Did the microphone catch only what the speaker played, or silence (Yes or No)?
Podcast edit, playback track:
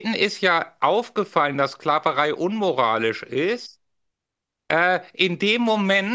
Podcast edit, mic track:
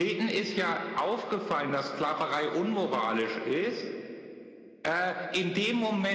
Yes